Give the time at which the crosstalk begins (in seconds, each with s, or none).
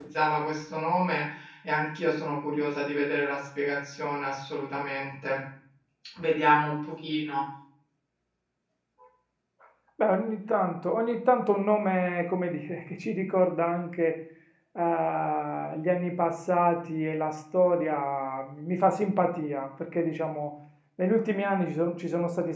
none